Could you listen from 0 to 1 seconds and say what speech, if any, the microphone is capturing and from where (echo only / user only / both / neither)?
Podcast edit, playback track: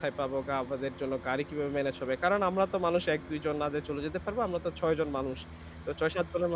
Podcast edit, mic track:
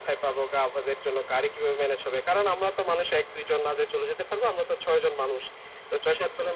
echo only